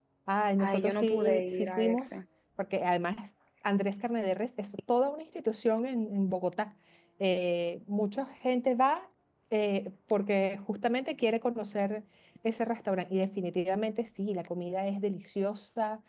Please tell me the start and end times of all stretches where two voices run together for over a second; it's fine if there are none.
0.6-2.1

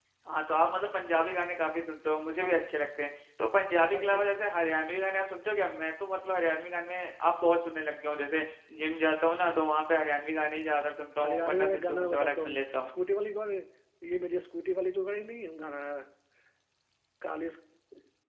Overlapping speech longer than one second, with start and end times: 11.2-12.9

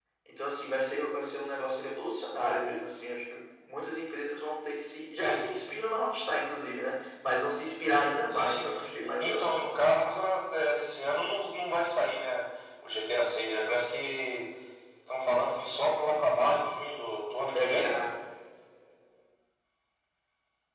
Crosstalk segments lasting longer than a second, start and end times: none

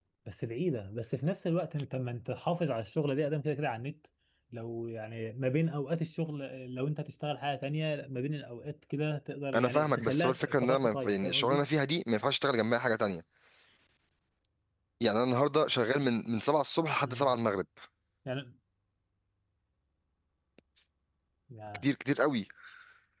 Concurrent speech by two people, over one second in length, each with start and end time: 9.6-11.6

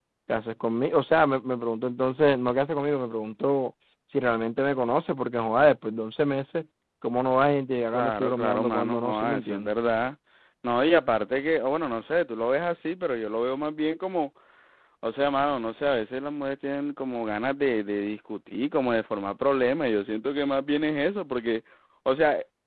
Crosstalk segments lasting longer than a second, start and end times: 7.9-9.7

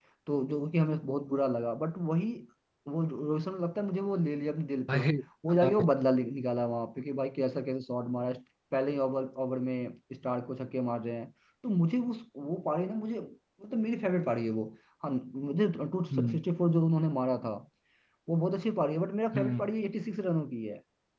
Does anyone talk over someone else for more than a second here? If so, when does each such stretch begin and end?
none

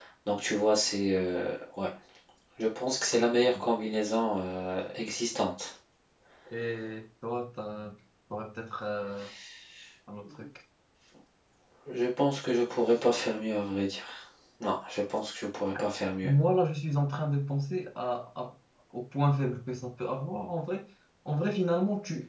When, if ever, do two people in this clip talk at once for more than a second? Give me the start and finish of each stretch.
none

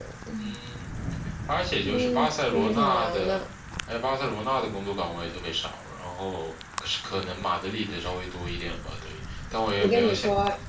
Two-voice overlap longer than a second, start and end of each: 1.8-3.4

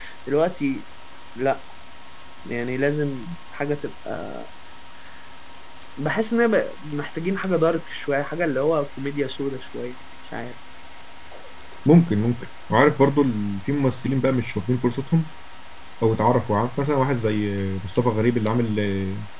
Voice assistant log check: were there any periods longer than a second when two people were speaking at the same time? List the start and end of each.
none

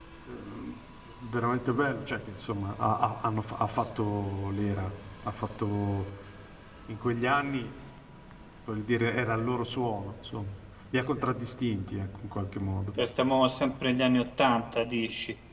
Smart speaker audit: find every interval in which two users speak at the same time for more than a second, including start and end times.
none

